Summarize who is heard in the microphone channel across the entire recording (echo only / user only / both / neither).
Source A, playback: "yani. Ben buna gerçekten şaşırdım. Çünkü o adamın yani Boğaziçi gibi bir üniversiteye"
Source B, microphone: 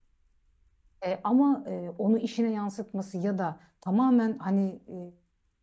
user only